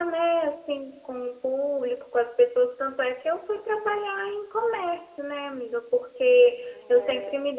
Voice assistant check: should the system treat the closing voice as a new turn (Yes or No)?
No